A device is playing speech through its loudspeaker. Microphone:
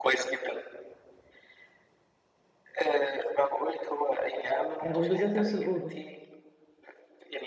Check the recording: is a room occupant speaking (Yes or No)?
Yes